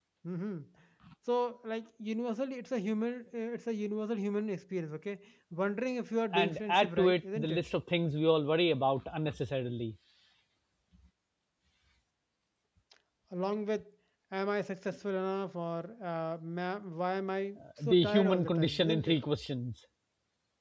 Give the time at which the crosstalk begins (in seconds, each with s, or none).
6.3 s